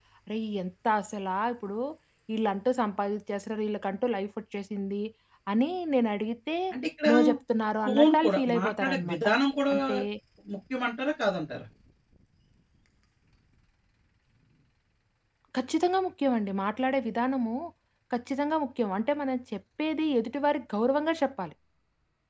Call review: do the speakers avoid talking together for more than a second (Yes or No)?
No